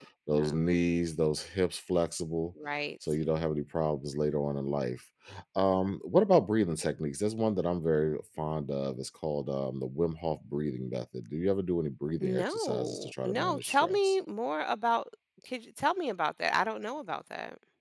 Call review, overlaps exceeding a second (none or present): present